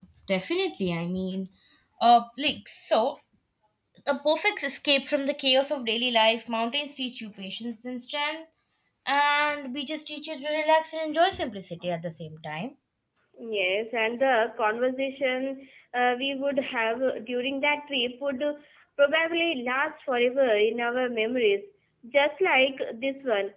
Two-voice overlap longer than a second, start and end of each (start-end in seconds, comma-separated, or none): none